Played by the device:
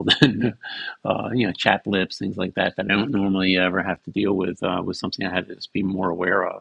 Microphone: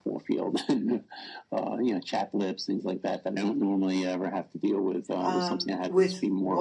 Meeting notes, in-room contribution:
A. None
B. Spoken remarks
B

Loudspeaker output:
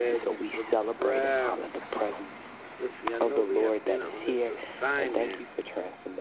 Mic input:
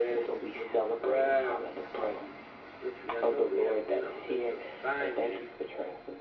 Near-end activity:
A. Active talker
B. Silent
B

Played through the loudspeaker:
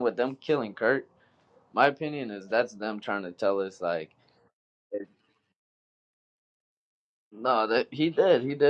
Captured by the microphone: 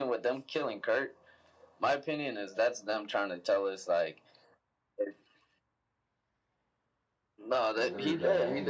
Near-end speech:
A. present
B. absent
A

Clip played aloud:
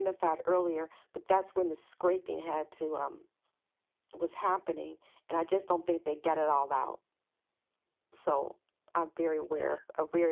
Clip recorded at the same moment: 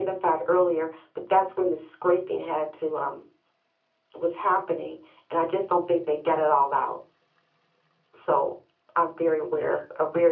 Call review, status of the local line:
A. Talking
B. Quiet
B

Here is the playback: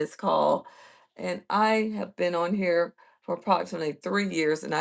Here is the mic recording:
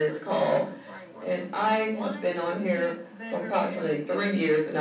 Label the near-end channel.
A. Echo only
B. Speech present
B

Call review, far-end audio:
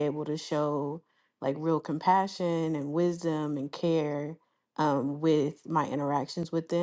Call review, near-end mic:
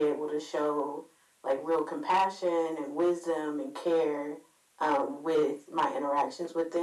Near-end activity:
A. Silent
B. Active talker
A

